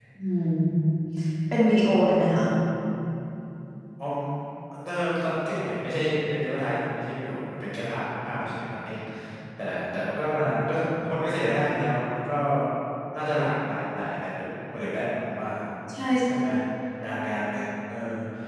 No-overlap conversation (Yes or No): Yes